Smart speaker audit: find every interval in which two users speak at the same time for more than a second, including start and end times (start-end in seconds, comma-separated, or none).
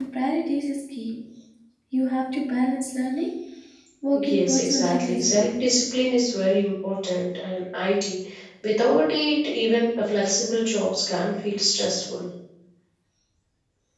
4.2-5.5